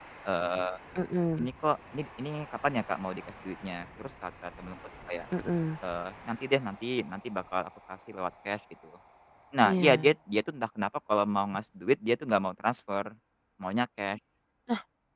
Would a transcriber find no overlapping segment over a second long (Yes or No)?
Yes